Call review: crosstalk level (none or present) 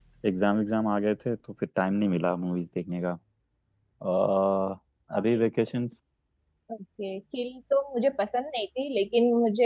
none